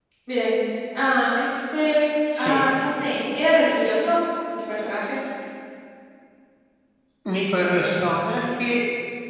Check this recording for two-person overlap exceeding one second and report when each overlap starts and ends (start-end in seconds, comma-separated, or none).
none